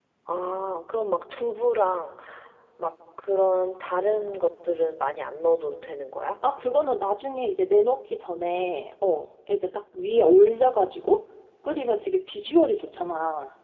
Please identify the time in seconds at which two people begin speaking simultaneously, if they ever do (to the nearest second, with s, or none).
none